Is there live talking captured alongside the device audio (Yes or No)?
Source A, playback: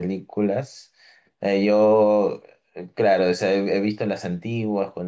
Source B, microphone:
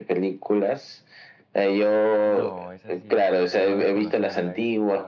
Yes